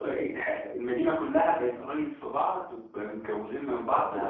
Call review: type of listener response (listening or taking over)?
taking over